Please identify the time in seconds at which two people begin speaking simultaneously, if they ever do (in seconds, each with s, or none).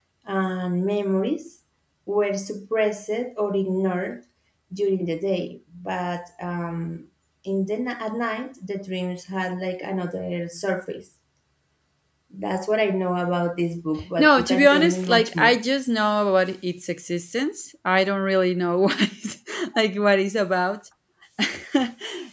14.2 s